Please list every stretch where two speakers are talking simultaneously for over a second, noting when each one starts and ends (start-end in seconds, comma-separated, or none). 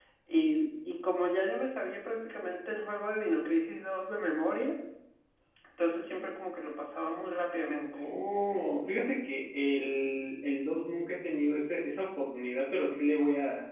none